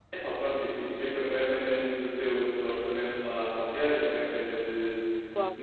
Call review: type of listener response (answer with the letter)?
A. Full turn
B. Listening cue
B